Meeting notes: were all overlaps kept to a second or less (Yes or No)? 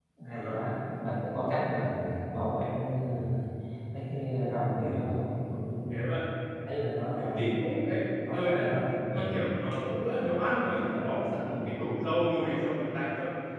Yes